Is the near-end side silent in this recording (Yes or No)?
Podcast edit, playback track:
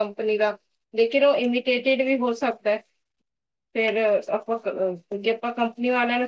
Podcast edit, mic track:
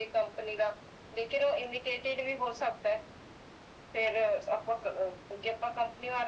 Yes